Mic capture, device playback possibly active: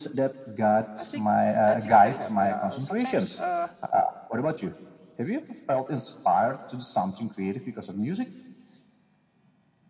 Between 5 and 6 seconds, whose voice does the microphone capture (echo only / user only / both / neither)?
echo only